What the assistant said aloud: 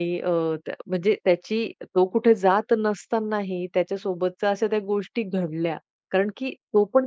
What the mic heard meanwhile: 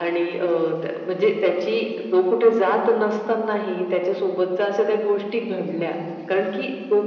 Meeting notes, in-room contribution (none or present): none